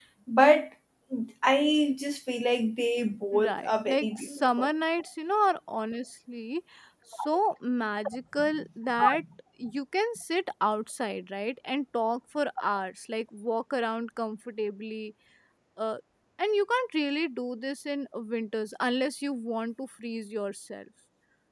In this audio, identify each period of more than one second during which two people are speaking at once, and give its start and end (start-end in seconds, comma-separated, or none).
3.4-4.7